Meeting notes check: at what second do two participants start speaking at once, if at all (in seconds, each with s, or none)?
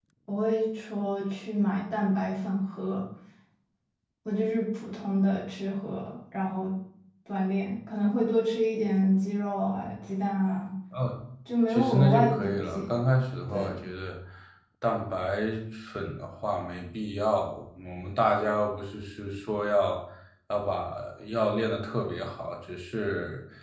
11.7 s